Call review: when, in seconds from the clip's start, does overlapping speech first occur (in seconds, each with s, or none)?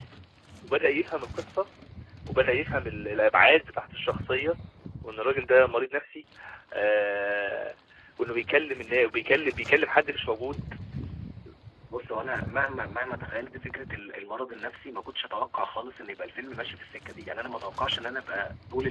none